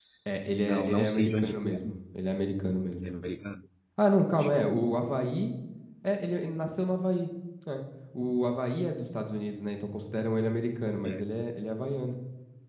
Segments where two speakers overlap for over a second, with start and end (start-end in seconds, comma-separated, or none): 0.6-2.0